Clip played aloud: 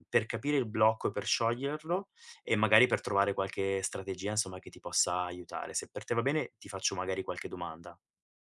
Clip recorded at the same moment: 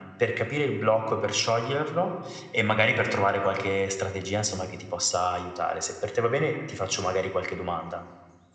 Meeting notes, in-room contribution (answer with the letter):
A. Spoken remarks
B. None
B